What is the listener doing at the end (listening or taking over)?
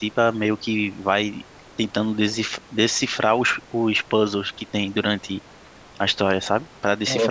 listening